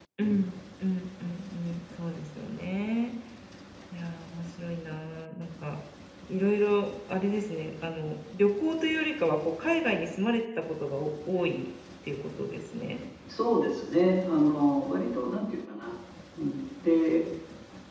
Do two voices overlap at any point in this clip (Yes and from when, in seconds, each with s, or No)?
No